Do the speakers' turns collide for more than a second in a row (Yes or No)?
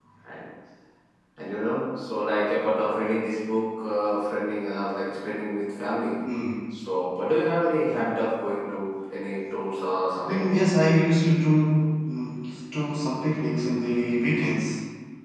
No